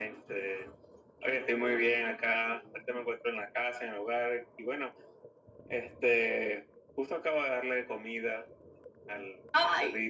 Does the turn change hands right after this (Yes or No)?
Yes